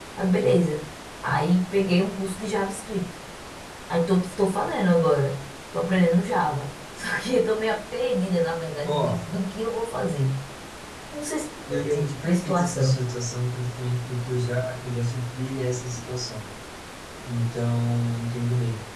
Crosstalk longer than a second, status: present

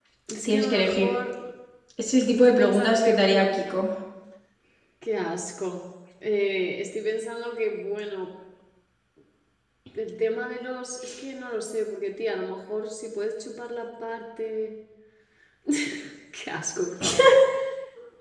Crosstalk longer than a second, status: present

